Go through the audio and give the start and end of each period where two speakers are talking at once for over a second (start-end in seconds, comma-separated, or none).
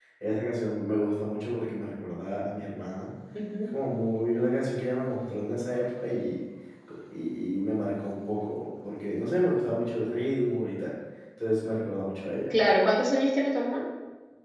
none